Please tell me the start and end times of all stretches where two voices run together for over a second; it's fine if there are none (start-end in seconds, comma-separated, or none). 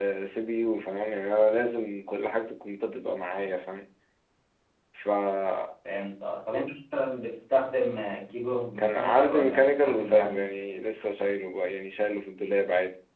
8.8-10.5